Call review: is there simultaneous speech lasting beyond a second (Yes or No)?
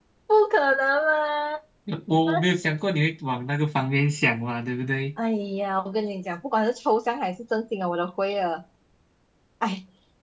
No